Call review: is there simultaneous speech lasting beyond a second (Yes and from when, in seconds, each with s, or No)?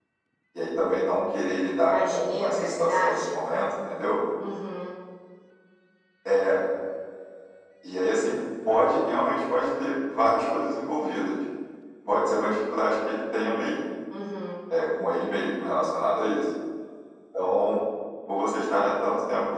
Yes, from 1.8 s